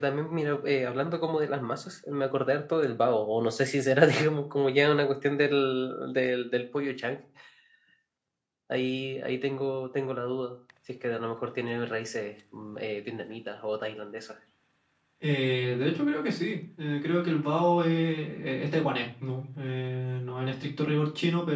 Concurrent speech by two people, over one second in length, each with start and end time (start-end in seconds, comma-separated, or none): none